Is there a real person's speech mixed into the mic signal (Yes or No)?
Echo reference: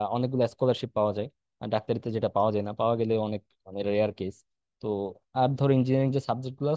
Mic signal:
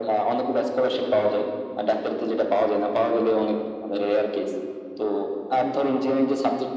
No